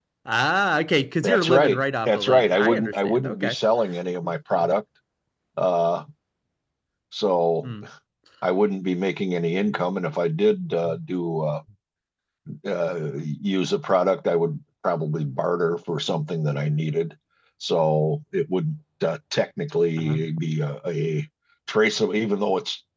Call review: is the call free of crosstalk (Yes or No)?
No